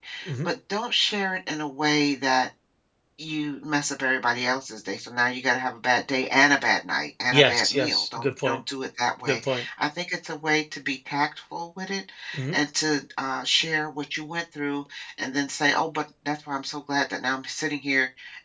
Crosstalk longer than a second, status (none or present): present